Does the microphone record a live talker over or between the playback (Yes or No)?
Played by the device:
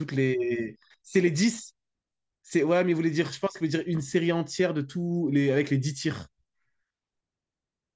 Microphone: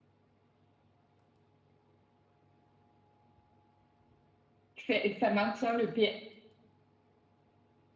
Yes